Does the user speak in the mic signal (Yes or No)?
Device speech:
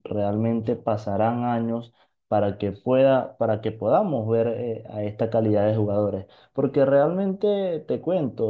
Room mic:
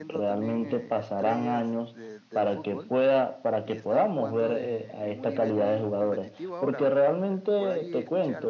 Yes